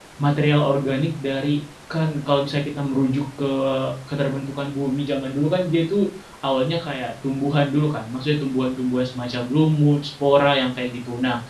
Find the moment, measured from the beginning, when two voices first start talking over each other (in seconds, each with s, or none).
none